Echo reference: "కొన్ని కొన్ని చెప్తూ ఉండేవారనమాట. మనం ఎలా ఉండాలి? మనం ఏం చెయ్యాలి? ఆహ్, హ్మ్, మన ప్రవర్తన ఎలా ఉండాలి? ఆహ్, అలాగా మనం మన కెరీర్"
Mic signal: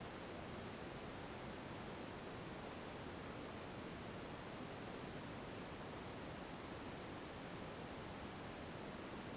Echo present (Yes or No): No